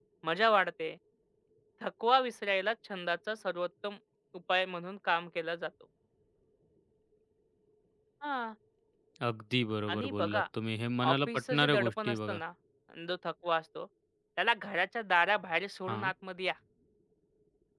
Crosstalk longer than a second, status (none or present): present